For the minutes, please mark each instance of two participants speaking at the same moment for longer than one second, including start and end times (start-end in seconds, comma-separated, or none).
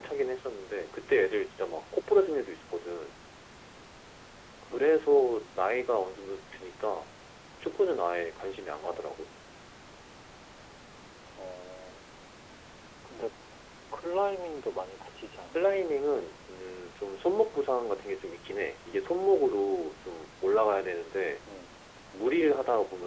none